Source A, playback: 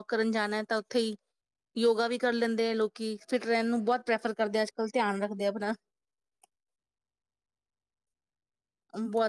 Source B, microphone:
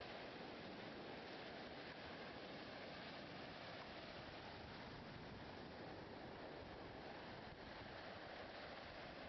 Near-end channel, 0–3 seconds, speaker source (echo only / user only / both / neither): neither